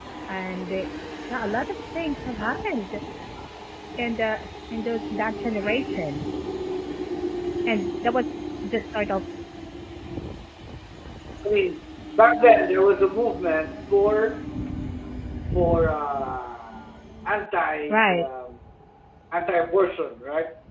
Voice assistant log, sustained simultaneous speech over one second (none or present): none